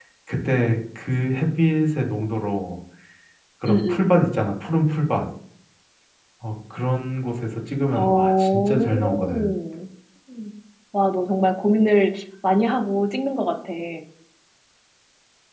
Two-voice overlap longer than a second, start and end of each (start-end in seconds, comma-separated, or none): 7.9-9.4